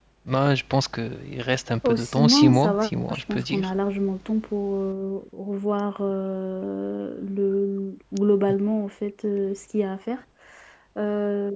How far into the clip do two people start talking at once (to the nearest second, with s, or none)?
2 s